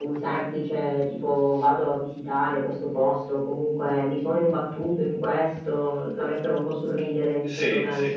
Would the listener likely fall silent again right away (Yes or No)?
No